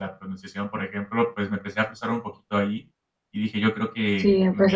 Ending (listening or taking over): taking over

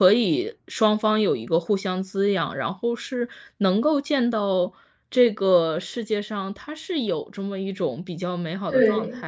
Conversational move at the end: taking over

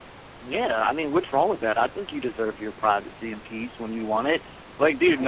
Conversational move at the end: listening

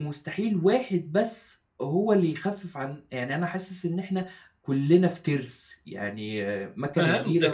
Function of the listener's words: taking over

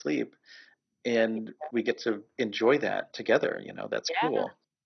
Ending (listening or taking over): taking over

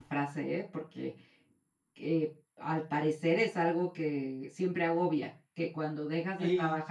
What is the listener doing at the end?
listening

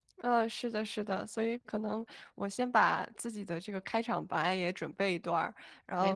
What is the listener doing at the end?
listening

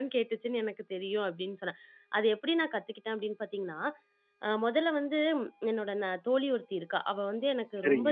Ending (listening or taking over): listening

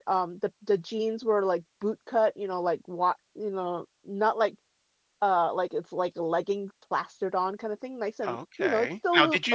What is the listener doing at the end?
taking over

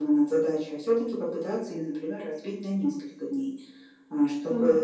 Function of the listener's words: listening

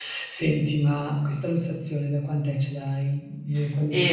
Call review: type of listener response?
taking over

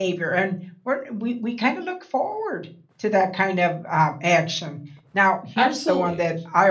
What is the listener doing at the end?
listening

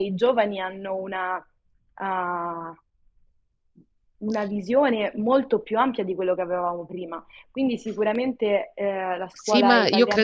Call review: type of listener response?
taking over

